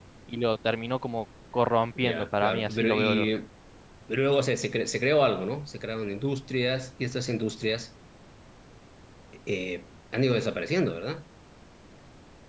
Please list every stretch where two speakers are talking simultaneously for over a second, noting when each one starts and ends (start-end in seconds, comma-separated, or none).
2.0-3.3